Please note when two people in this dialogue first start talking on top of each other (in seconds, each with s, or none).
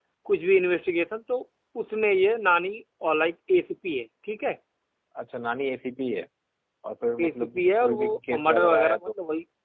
7.2 s